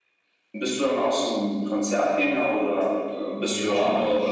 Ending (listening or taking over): taking over